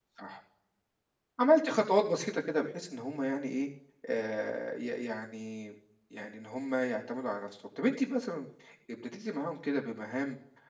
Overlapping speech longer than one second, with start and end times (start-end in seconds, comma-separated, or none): none